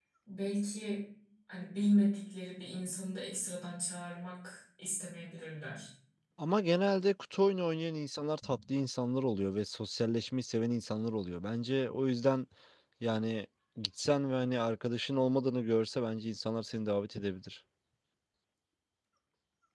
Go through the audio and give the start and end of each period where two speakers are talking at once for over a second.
none

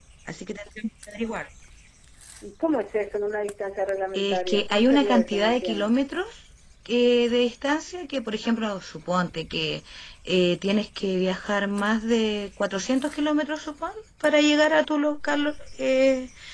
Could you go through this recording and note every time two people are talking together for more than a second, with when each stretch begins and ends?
4.1-5.9

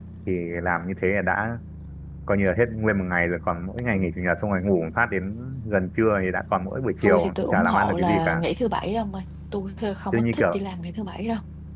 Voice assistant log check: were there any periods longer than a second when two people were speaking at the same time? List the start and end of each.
7.0-8.4

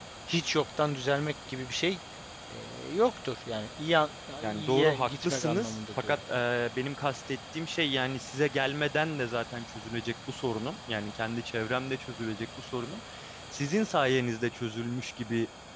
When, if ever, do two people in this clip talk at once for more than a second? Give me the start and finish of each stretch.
4.4-6.2

